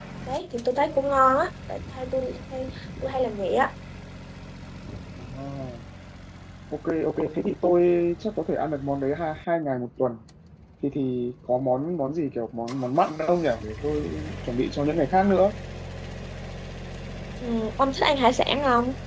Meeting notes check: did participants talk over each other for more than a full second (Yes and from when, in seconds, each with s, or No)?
No